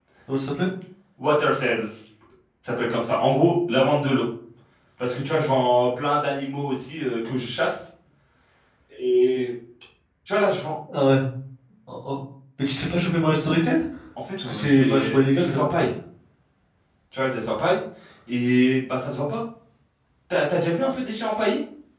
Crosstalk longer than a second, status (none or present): present